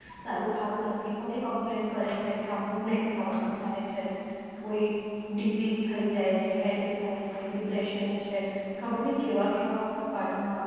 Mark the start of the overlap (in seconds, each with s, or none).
none